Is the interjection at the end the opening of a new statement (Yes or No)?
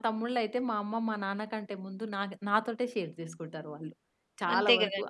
No